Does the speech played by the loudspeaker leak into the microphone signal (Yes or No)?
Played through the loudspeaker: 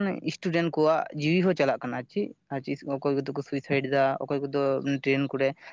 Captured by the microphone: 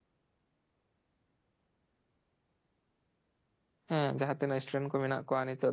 No